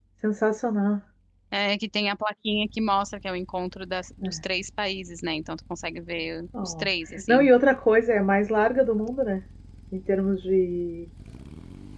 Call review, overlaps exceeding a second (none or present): none